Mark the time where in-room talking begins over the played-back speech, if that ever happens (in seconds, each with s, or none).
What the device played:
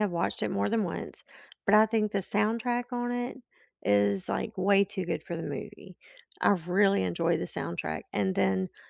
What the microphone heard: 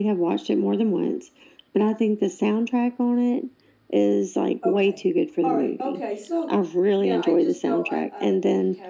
4.6 s